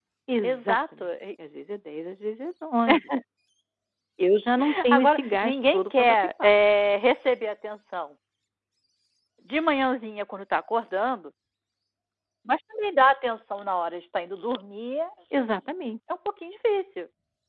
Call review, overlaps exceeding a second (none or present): present